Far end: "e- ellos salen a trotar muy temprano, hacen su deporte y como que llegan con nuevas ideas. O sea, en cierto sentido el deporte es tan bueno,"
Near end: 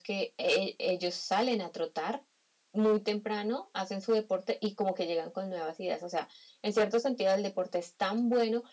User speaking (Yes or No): No